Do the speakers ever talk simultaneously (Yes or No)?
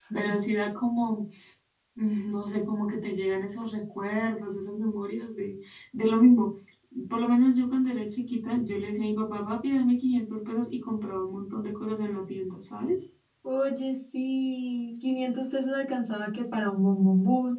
No